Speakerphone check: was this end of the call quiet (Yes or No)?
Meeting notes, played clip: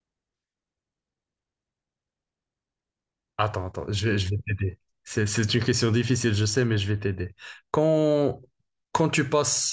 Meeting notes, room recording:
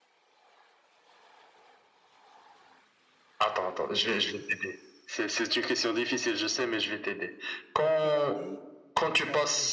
No